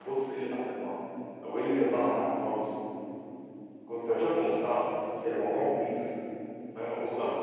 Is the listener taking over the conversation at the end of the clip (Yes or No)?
Yes